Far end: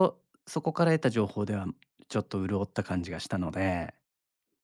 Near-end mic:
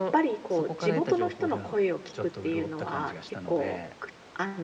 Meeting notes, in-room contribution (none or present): present